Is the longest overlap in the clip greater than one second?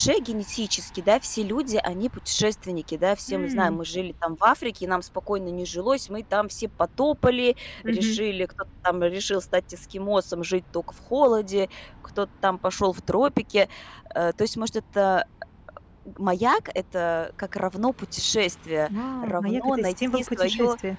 Yes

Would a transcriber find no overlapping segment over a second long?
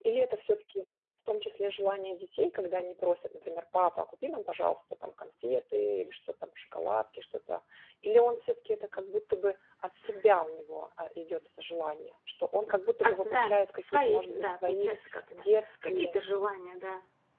No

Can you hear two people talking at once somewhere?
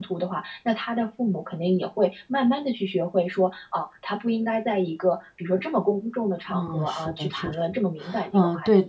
Yes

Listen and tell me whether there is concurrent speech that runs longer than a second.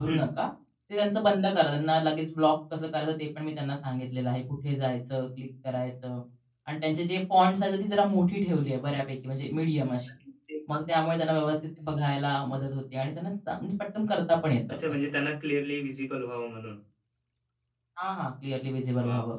No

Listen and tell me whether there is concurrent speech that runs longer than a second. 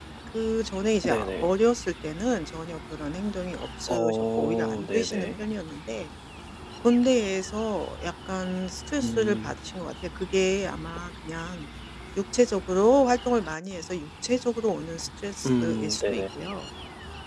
Yes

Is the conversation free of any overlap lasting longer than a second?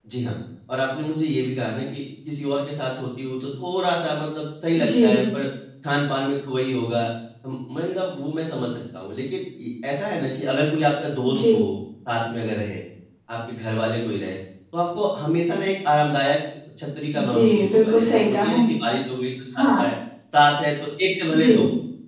No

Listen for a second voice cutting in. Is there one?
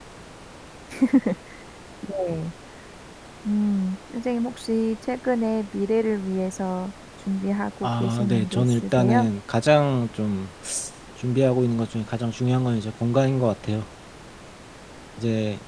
Yes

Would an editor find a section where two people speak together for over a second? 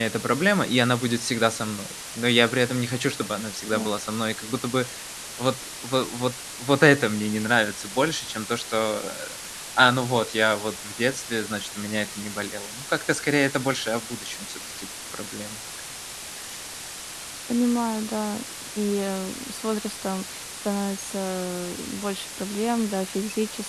No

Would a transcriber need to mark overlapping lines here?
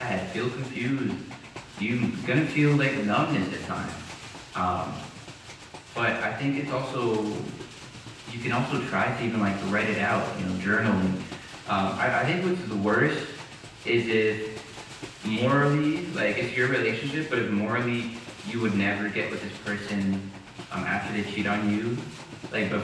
No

